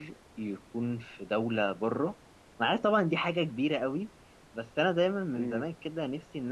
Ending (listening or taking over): listening